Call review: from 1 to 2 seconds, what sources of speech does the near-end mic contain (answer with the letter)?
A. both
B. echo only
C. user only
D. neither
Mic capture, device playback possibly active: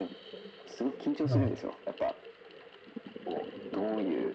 A